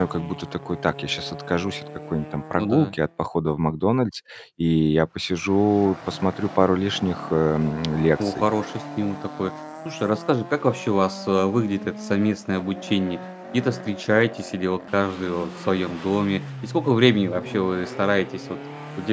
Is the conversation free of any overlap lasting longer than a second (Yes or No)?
Yes